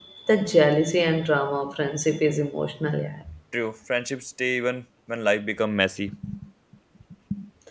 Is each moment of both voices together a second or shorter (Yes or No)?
Yes